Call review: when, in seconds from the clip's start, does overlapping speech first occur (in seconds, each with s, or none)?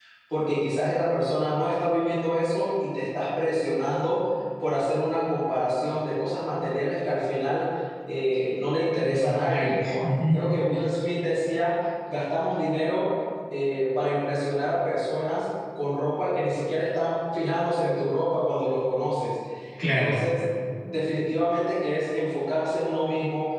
9.0 s